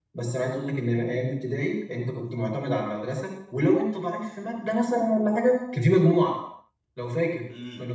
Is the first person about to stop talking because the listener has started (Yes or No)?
Yes